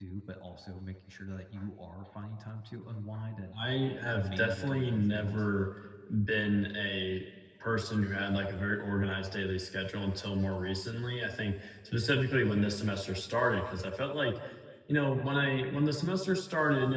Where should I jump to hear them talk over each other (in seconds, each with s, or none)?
4.0 s